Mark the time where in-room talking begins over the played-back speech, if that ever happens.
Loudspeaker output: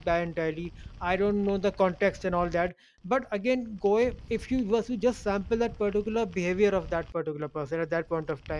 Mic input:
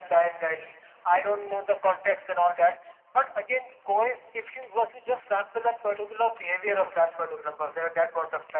none

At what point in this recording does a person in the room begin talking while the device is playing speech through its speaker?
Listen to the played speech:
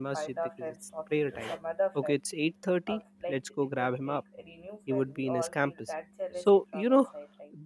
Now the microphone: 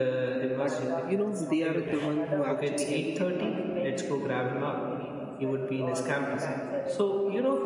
1 s

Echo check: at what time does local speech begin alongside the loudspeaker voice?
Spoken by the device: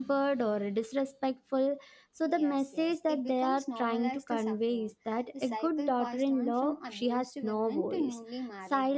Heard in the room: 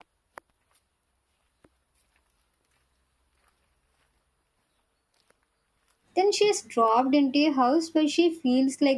6 s

